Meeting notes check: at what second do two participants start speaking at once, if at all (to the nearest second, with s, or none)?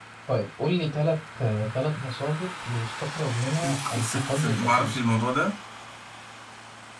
4 s